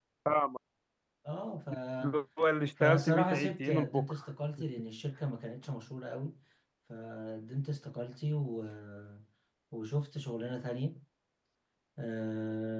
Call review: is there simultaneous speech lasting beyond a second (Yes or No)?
Yes